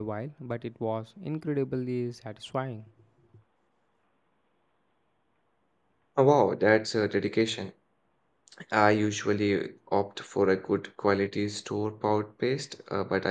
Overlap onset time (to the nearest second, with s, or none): none